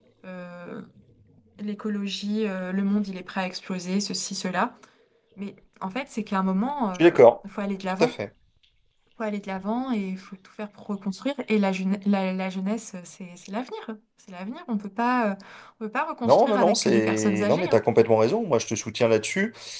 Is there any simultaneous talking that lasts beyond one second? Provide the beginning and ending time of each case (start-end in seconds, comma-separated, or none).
16.2-17.8